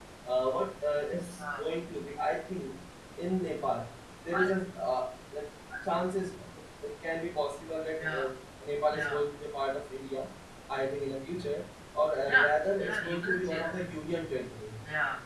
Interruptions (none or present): present